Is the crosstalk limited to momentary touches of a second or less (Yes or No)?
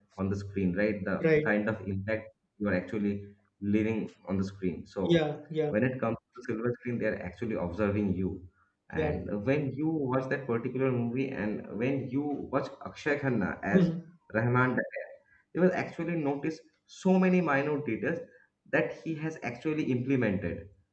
Yes